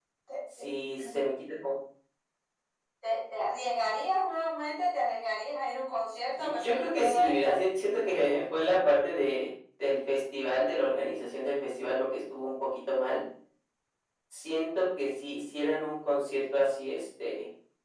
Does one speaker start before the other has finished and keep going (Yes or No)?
Yes